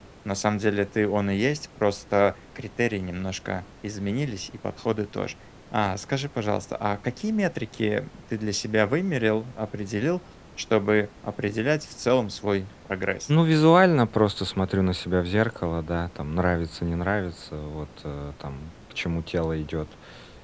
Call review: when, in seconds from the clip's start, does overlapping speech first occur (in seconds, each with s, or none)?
none